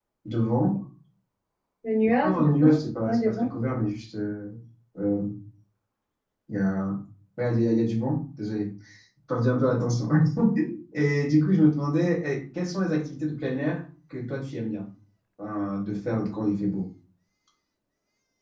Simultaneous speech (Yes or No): Yes